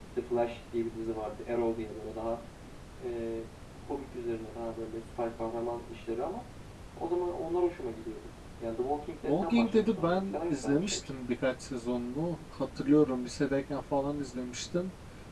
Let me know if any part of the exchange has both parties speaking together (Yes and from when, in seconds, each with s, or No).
Yes, from 9.3 s